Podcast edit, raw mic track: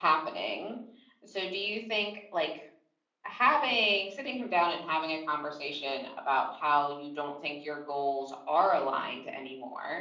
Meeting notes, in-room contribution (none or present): present